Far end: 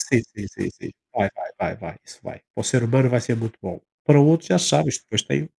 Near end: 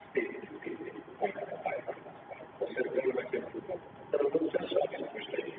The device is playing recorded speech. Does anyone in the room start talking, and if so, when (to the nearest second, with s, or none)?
none